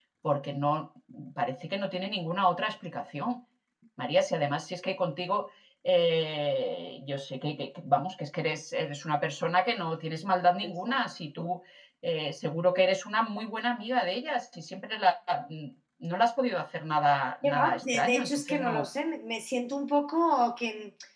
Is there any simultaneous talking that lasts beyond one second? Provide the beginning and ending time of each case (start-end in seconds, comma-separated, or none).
17.4-18.9